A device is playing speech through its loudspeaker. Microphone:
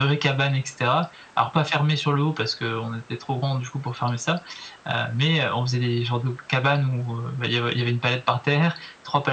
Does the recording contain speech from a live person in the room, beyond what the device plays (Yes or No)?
No